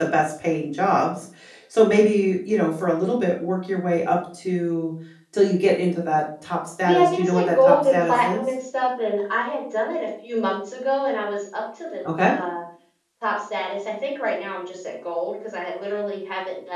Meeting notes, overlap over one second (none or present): present